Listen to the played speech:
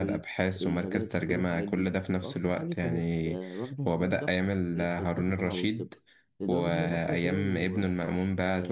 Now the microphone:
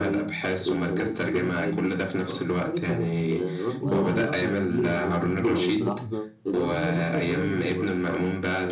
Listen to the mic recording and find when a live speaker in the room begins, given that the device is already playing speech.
3.8 s

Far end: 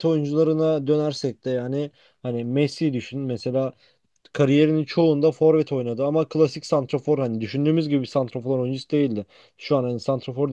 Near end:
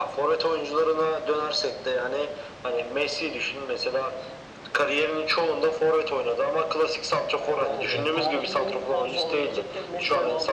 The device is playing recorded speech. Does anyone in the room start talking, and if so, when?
7.4 s

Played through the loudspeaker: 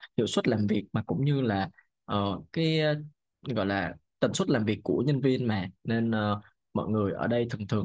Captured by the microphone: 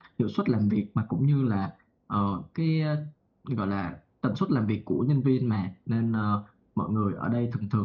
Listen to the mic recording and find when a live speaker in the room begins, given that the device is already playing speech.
none

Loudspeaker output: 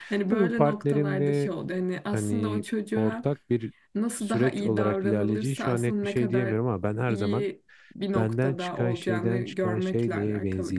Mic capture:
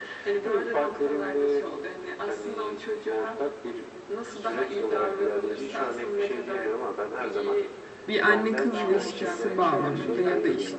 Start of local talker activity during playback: 8.1 s

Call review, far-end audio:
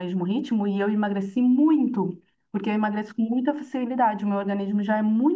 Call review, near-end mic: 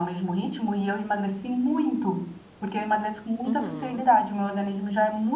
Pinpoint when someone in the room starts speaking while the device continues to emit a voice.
3.4 s

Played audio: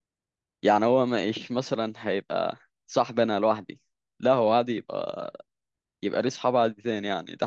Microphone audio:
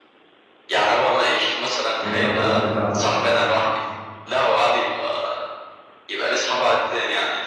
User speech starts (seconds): 2.0 s

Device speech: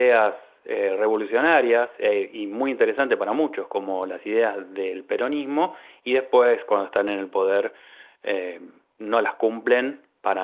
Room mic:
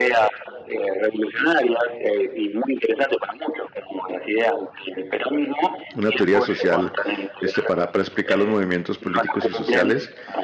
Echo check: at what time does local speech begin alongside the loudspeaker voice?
5.9 s

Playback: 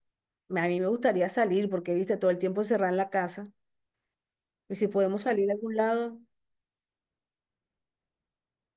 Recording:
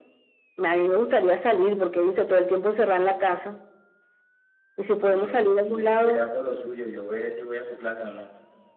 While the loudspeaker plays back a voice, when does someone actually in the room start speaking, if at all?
5.0 s

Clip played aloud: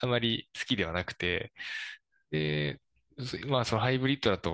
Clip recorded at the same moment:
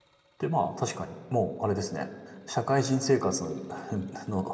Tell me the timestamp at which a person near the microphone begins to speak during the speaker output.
0.4 s

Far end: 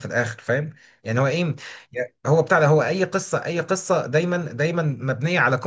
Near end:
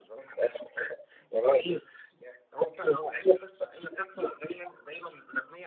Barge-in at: none

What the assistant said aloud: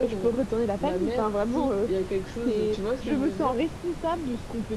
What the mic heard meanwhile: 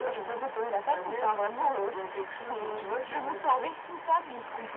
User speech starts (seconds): none

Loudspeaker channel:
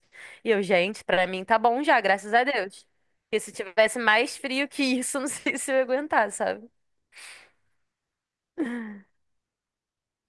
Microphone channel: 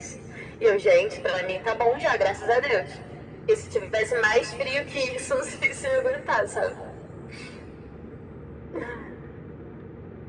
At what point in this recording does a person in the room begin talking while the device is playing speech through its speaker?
none

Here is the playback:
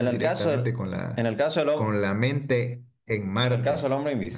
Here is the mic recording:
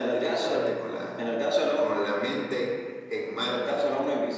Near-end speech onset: none

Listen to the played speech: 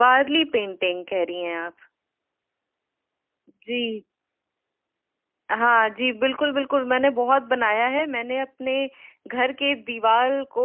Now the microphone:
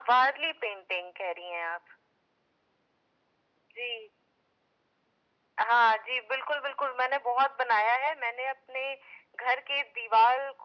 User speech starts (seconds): none

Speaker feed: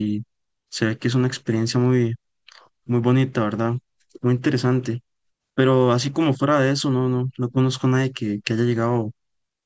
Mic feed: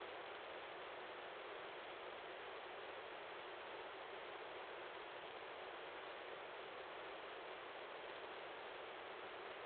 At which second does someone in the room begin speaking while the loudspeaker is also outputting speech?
none

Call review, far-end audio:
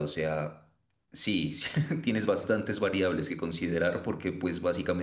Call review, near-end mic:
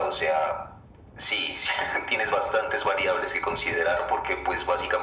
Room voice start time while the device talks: none

